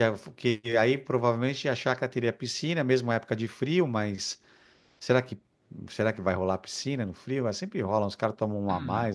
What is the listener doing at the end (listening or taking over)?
taking over